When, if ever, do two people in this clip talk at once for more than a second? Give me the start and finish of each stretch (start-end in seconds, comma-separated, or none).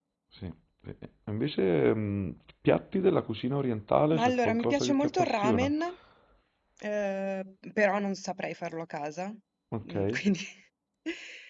4.1-5.7